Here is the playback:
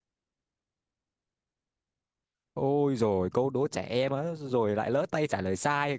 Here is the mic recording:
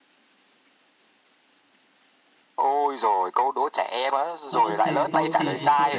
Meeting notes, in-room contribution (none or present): present